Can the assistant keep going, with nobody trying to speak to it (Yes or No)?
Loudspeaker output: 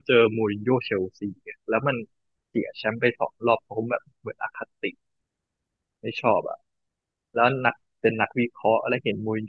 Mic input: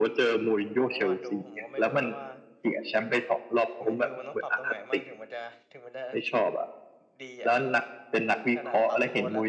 No